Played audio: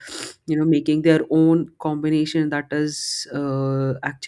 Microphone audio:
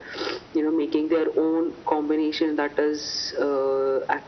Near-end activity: none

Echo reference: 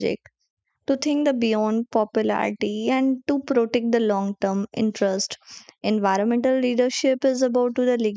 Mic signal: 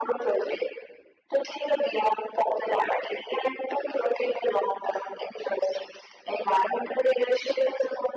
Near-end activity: none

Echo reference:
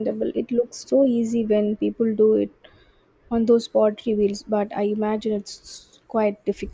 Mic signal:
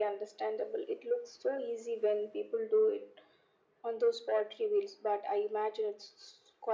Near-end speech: none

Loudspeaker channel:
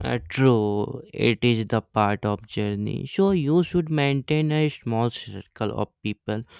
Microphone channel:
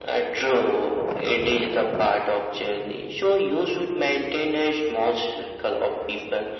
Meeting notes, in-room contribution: none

